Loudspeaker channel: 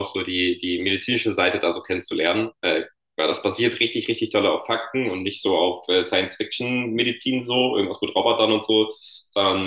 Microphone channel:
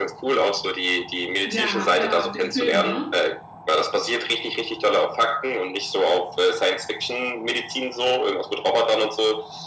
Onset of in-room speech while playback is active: 1.4 s

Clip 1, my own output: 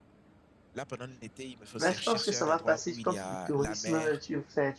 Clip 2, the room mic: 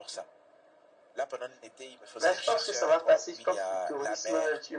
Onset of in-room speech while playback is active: none

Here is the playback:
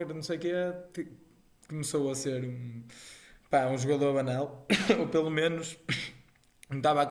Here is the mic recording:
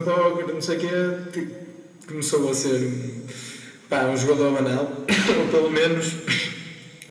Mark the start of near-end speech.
none

